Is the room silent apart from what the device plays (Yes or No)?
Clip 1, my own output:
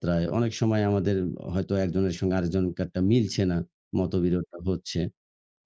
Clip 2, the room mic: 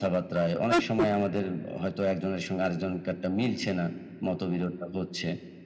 No